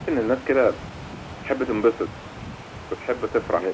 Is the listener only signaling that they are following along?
No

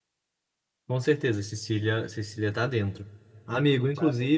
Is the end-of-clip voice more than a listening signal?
No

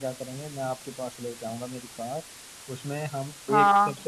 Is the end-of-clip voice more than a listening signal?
No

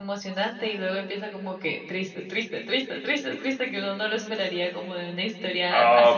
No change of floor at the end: No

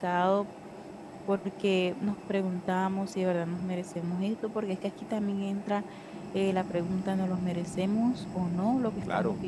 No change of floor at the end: No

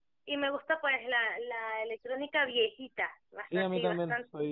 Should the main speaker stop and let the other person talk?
Yes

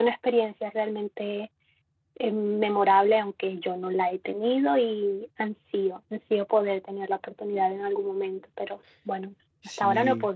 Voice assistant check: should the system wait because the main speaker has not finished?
No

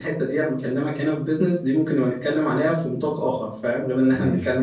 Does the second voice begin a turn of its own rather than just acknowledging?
No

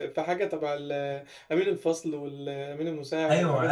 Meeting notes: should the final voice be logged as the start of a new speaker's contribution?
Yes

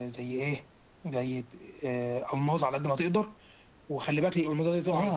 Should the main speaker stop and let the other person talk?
Yes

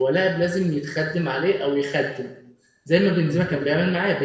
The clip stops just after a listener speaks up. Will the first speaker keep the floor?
Yes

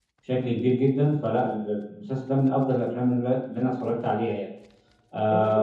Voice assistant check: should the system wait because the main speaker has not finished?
No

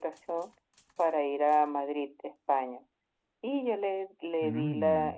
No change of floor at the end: Yes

